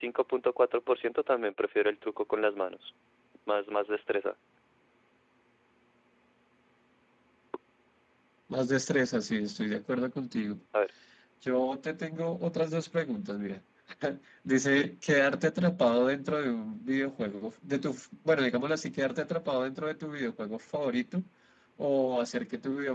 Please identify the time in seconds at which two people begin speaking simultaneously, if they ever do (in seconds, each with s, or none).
none